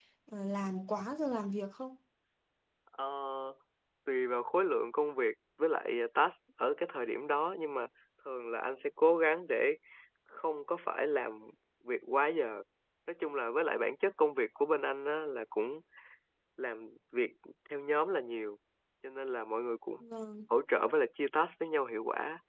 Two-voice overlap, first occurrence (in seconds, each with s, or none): none